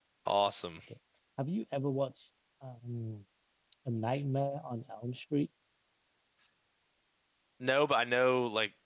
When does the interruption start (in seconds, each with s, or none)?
none